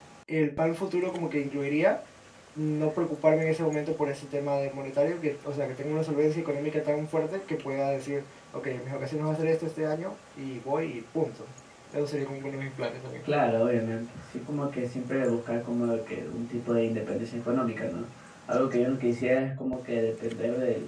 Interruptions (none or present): none